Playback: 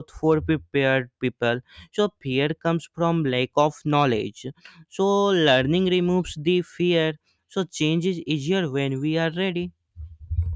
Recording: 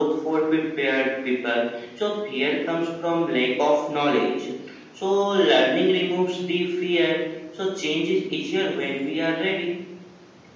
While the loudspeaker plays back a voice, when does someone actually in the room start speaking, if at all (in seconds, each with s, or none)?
none